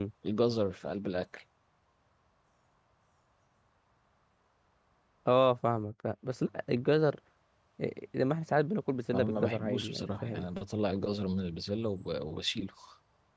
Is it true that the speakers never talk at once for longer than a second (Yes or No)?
No